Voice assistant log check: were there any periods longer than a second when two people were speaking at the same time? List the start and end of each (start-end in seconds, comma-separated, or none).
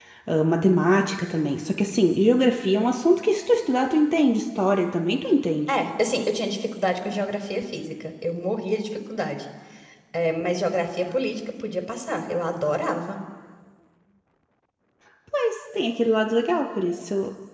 none